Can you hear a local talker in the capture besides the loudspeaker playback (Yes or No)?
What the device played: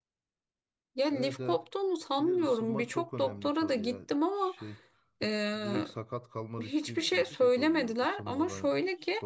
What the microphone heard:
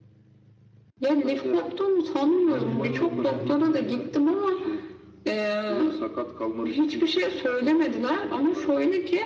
Yes